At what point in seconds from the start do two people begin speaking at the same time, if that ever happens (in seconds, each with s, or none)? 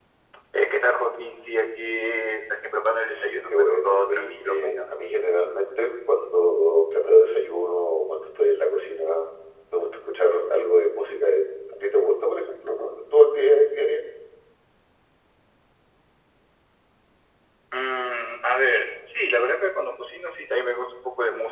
3.5 s